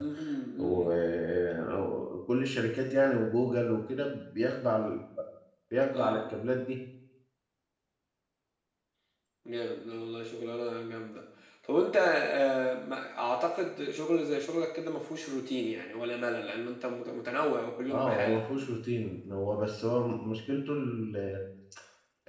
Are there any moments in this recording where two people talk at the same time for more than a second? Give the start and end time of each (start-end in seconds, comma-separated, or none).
none